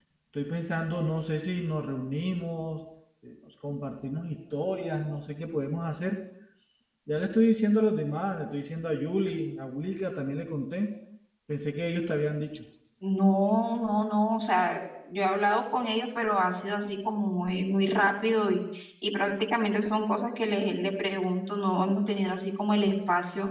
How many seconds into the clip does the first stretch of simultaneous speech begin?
none

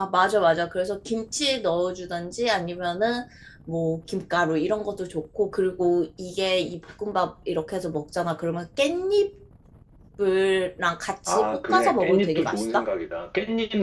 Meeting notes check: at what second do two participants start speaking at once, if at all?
11.3 s

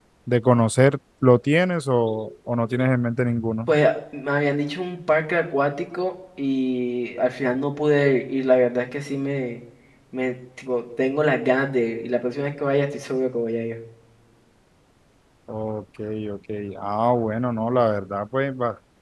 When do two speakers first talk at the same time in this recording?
none

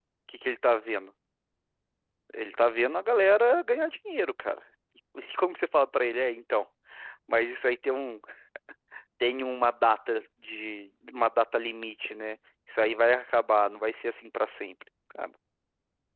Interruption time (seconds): none

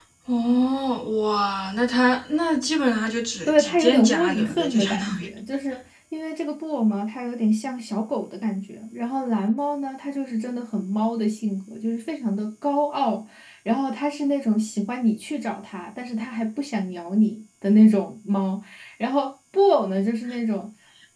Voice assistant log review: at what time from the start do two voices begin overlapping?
3.5 s

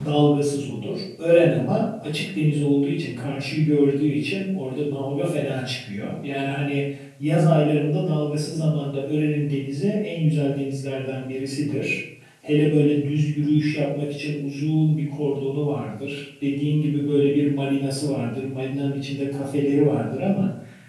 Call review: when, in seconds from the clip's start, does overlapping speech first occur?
none

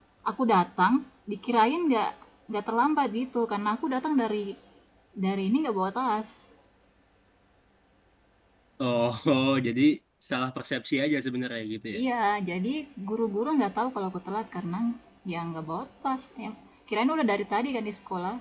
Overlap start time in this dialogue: none

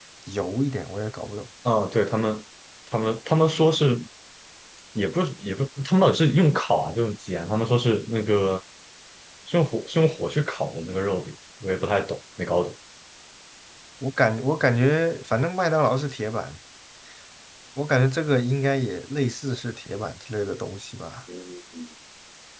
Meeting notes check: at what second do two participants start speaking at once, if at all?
none

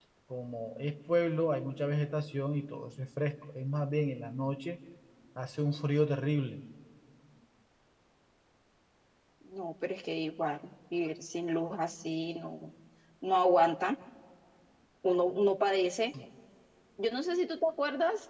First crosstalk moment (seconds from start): none

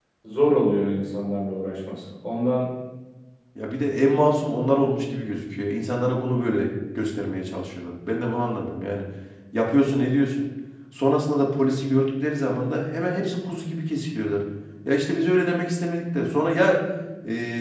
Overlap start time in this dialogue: none

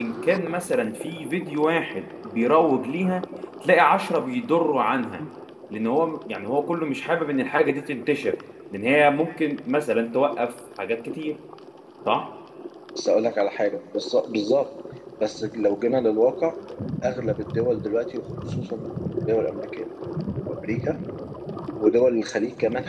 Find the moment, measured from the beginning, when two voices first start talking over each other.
none

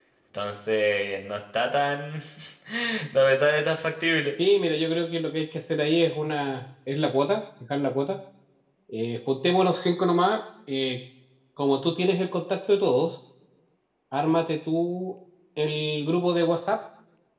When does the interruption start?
none

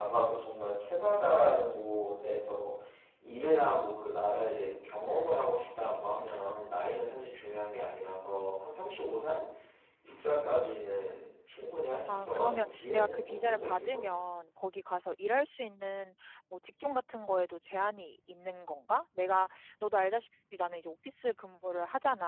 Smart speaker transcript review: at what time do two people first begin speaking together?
12.1 s

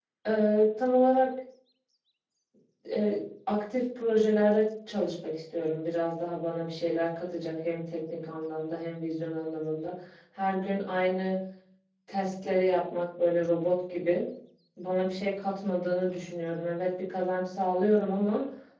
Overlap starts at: none

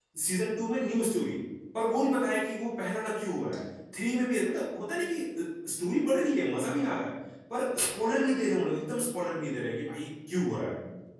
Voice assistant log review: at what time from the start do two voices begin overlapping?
none

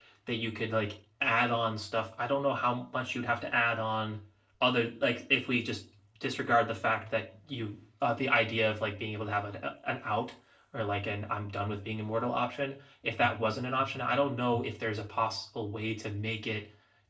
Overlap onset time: none

